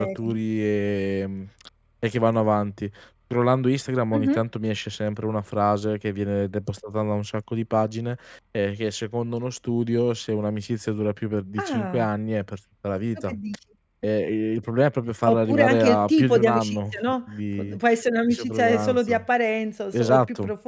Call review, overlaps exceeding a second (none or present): present